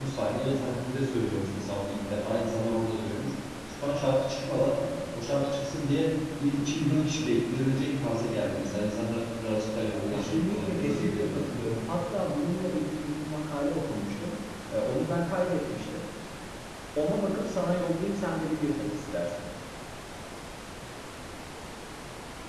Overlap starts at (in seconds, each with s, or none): 10.1 s